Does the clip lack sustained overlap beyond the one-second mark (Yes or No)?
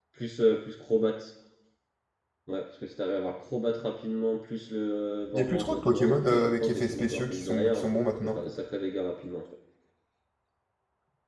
No